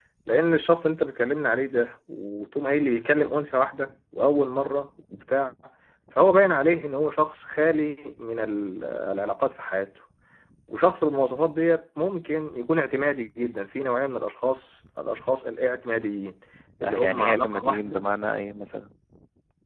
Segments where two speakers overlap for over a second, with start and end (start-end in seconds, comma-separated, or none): 16.8-18.0